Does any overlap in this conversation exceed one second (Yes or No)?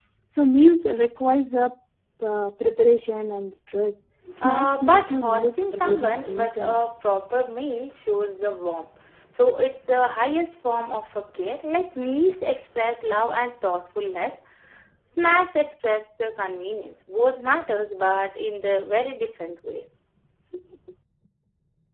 Yes